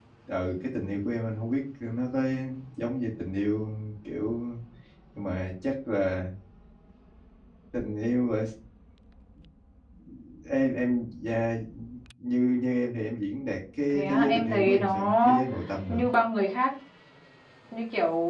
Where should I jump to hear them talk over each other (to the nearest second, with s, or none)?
14 s